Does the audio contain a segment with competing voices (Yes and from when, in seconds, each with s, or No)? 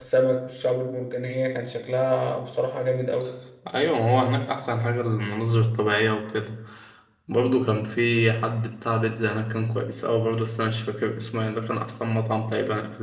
No